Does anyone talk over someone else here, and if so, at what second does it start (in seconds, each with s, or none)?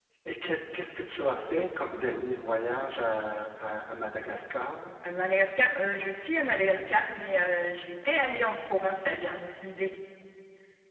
none